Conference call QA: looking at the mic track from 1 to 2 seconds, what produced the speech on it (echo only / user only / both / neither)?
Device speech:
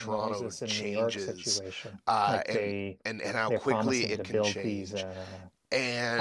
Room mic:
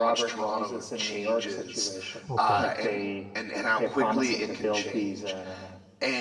echo only